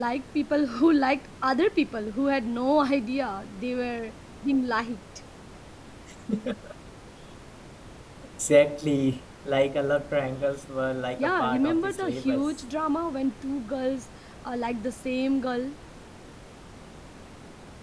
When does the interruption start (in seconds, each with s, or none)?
11.2 s